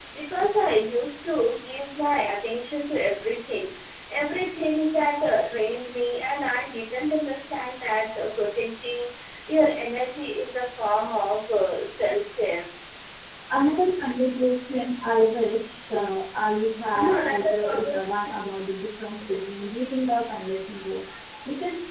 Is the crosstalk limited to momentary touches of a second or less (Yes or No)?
No